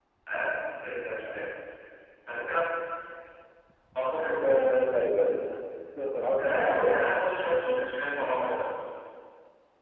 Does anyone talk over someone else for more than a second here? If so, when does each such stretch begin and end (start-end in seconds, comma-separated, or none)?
6.4-7.6